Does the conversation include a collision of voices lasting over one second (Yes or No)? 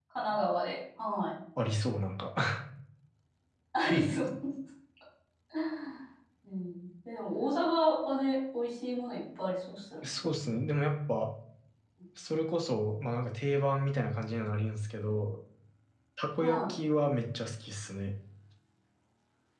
No